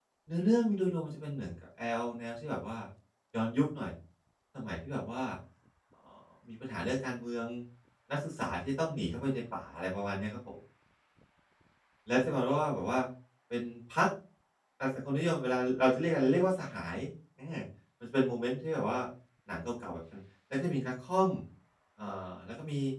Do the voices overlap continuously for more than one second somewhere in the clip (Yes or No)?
No